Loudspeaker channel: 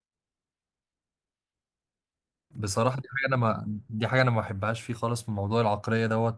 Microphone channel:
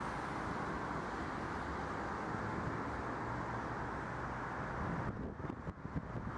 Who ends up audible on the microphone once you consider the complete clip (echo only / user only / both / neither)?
neither